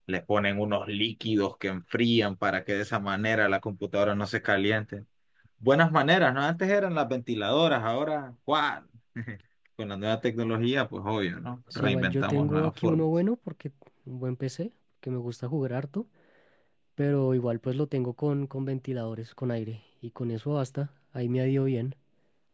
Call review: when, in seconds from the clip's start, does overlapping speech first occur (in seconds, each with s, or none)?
11.7 s